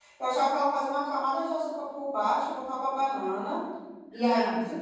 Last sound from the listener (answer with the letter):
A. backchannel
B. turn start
A